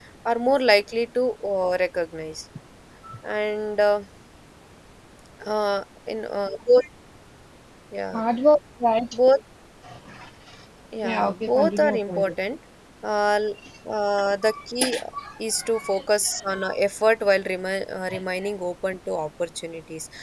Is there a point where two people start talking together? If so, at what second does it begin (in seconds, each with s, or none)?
11.0 s